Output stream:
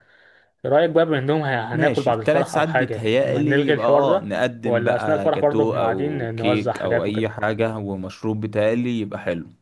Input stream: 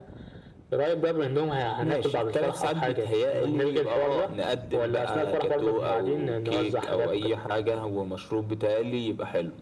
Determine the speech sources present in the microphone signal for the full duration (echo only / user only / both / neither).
echo only